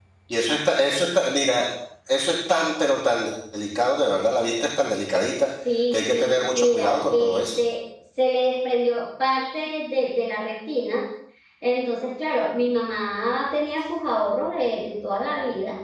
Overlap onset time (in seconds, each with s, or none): 5.9 s